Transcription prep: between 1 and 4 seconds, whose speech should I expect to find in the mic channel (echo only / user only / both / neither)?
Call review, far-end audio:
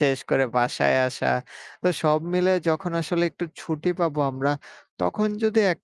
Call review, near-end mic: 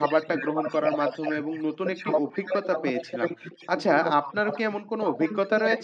both